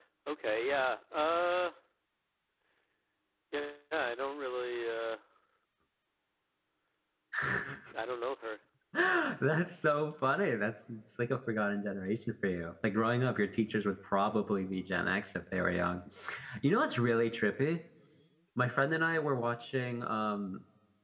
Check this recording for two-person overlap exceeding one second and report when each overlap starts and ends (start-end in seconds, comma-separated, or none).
none